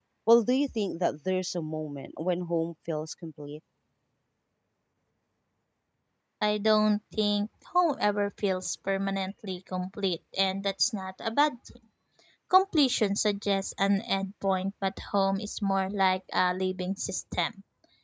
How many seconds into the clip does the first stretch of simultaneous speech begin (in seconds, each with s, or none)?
none